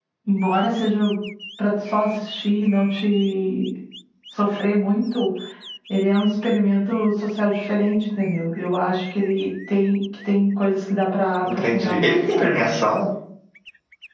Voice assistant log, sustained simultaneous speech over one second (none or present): present